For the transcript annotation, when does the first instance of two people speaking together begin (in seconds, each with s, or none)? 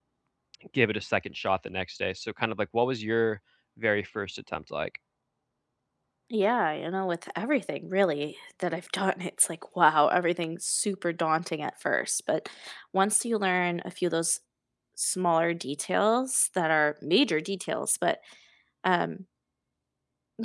none